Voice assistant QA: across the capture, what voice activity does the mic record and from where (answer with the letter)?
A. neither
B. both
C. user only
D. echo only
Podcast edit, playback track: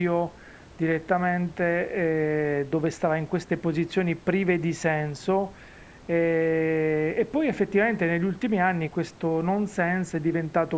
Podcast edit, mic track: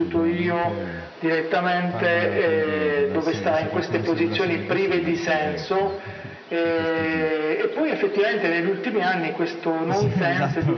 B